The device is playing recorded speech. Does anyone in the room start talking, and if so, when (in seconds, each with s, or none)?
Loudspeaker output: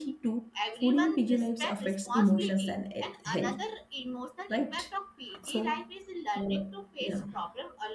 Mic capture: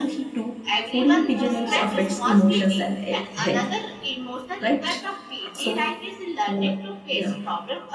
1.0 s